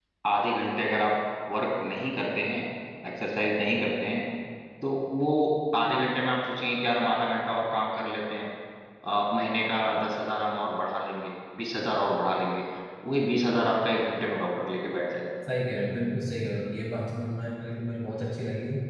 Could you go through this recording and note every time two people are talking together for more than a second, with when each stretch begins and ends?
none

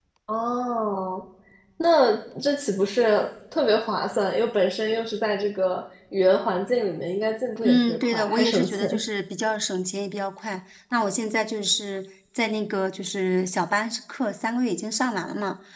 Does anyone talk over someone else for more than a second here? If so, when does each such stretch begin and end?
7.6-8.9

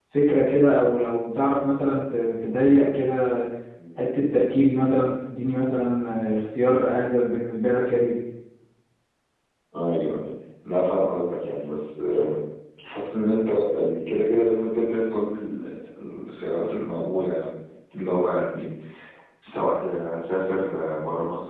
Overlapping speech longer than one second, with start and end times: none

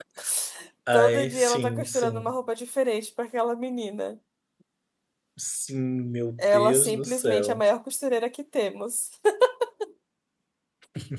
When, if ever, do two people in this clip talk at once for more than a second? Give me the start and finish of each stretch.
0.9-2.3, 6.4-7.6

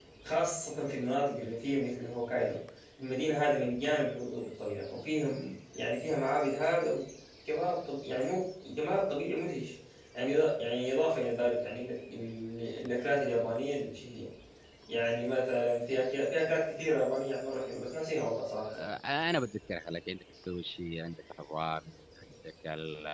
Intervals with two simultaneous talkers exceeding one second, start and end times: none

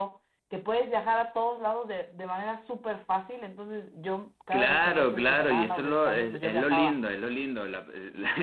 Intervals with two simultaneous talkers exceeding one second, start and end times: 4.5-7.0

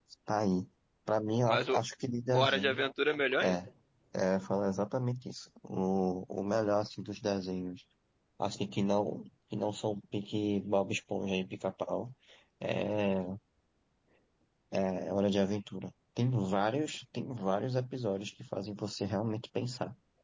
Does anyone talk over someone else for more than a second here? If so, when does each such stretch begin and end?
none

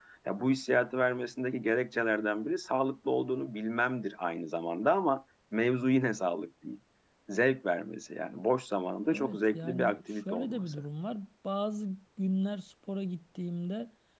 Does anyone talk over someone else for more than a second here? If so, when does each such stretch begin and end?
9.0-10.8

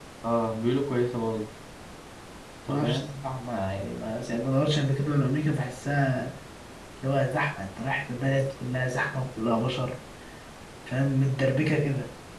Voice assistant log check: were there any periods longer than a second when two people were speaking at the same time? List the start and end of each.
none

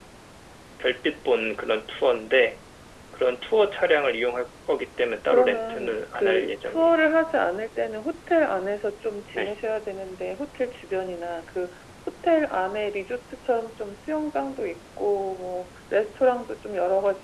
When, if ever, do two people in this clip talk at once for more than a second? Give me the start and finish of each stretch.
5.3-7.0

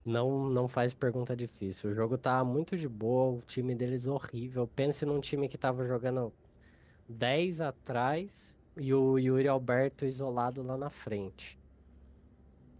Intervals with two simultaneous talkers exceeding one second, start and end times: none

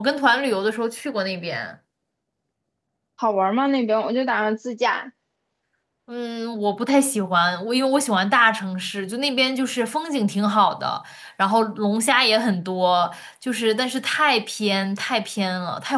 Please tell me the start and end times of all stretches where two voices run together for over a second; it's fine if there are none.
none

